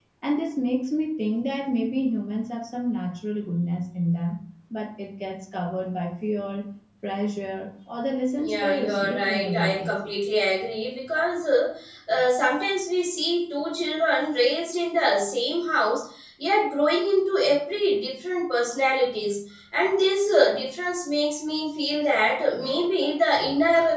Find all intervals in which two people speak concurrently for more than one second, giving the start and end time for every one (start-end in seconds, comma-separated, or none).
8.4-9.9